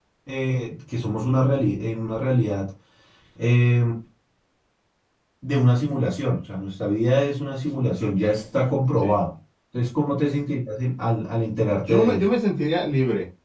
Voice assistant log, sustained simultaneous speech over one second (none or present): none